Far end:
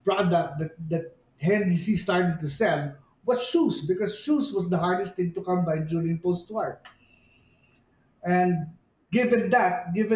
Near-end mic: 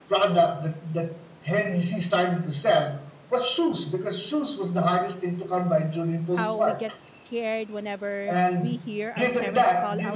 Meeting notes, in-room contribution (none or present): present